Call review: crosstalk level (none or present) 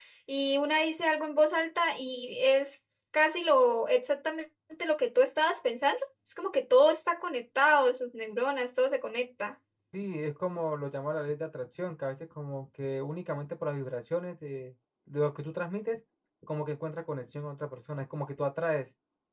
none